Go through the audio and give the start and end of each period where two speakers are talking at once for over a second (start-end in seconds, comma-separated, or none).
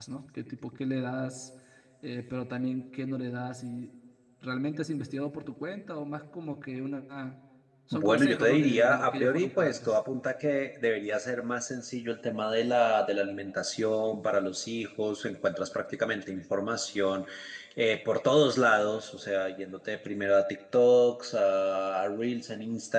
8.0-9.9